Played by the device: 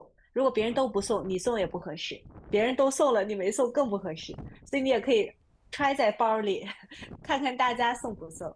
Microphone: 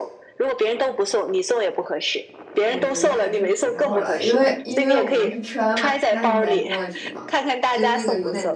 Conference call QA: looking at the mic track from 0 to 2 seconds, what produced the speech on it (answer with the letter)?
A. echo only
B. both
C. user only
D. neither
A